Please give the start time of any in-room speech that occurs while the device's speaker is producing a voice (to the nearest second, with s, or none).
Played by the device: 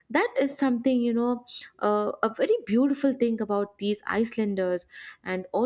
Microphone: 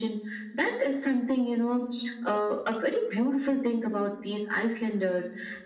none